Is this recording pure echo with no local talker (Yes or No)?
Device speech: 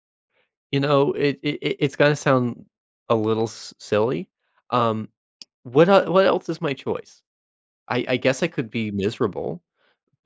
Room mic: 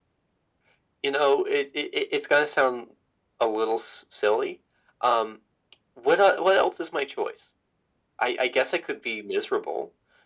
Yes